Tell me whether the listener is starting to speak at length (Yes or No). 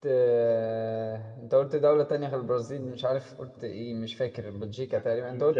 Yes